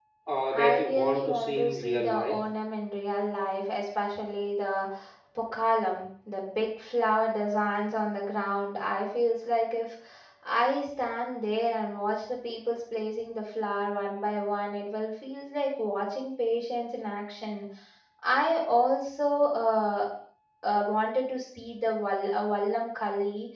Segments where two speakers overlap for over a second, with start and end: 0.5-2.4

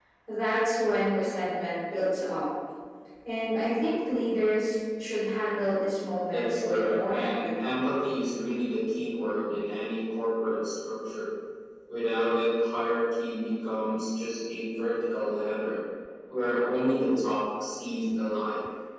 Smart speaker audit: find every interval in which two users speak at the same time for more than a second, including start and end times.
6.3-7.8

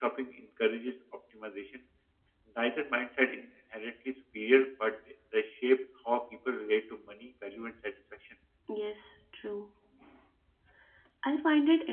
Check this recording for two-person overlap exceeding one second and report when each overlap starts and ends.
none

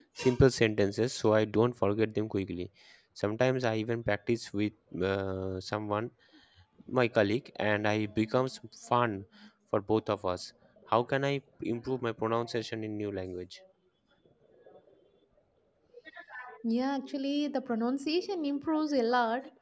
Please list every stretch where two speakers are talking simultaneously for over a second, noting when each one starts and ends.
none

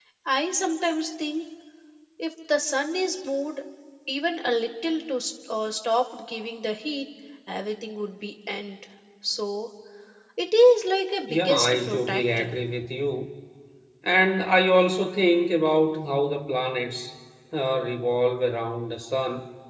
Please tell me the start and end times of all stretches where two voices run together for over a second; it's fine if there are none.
11.3-12.6

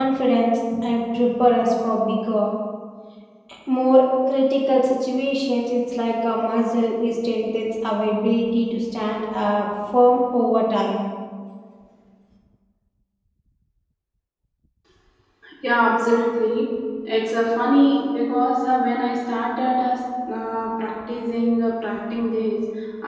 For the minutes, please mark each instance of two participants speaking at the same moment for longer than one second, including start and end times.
none

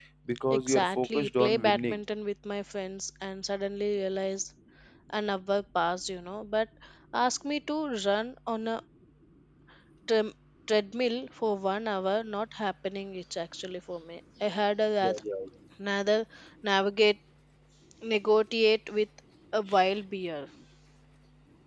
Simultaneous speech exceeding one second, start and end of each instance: 0.5-2.0

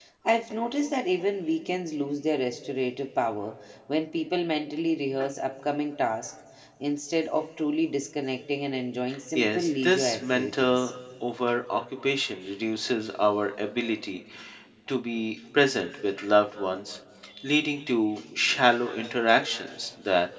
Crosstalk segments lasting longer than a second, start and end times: 9.3-10.9

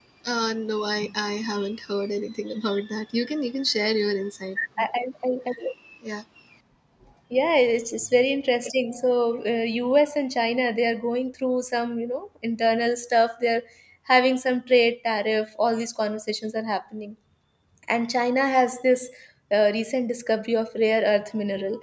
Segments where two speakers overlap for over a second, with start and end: none

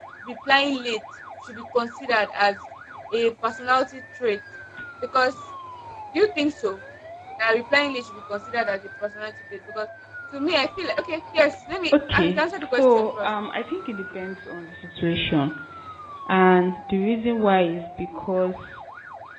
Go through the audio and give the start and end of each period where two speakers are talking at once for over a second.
11.9-13.3

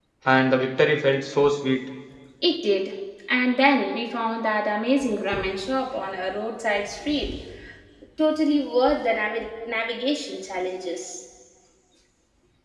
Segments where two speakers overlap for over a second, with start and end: none

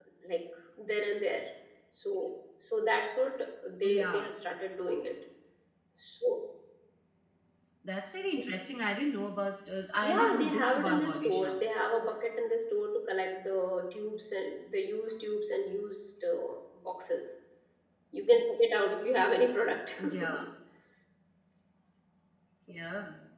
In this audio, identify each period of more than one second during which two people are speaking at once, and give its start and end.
10.0-11.5

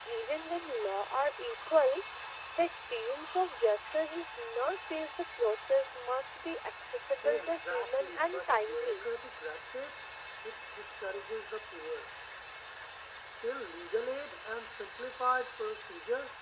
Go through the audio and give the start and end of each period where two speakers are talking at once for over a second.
7.2-9.1

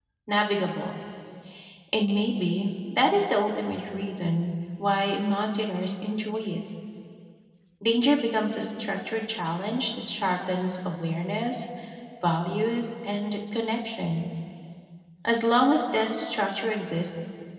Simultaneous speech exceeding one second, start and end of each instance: none

